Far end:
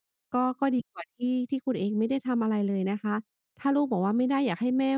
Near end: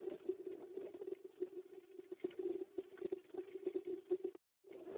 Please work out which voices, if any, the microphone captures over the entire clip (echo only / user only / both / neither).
neither